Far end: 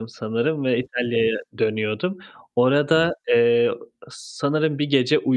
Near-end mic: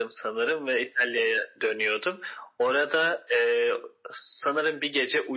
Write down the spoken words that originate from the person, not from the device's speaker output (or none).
none